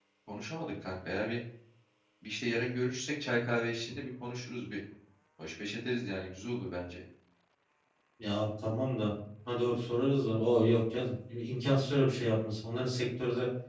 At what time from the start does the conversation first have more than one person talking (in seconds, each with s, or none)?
none